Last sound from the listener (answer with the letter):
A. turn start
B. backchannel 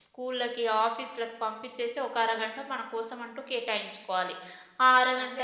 B